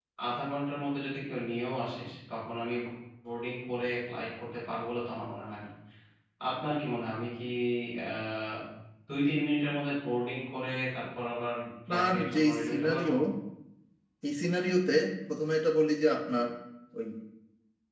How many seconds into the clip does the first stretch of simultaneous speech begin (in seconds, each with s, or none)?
11.9 s